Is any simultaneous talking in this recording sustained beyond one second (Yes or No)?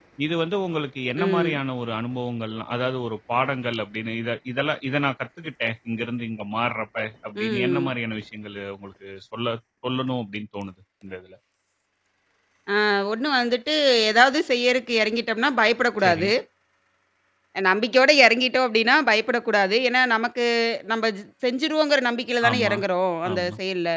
No